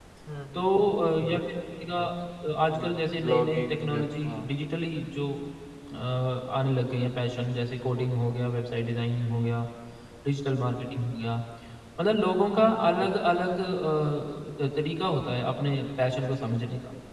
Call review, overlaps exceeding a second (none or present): present